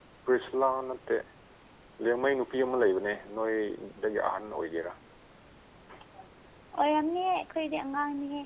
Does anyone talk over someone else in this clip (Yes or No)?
No